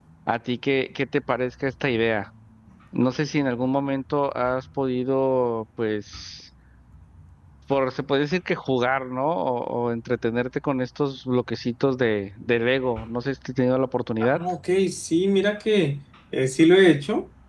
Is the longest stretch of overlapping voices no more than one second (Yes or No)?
Yes